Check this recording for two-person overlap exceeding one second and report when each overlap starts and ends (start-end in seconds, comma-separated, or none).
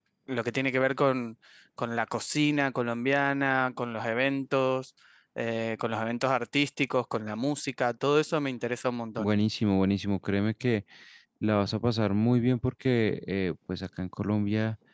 none